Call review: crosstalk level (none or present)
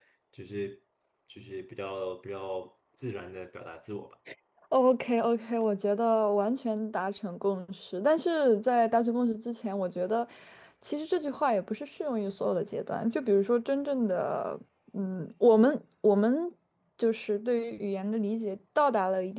none